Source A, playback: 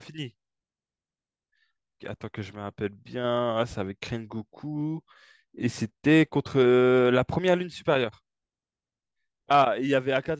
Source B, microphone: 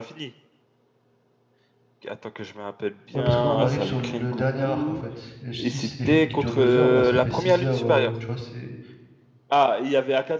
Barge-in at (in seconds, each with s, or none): 3.1 s